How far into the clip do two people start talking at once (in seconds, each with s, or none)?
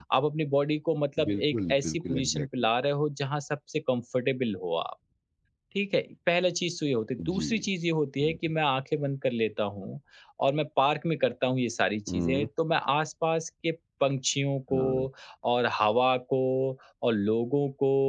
1.3 s